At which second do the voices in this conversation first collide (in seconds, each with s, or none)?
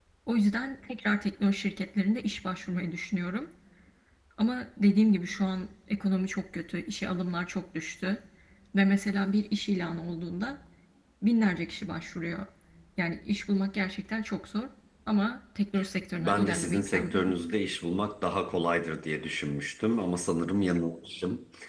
16.2 s